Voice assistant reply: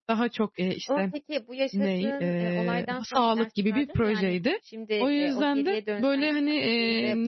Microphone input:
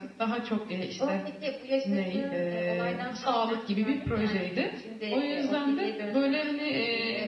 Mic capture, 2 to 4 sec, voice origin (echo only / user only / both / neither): echo only